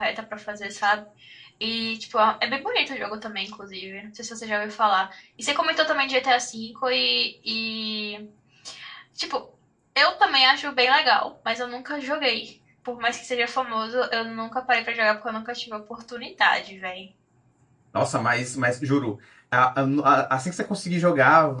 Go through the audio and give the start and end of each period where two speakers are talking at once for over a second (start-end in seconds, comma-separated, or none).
none